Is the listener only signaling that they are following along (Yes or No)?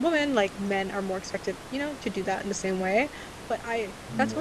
Yes